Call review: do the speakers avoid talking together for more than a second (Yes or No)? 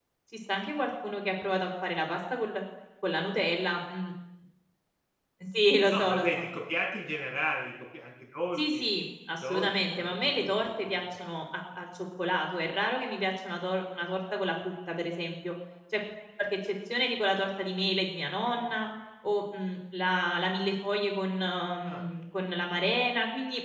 No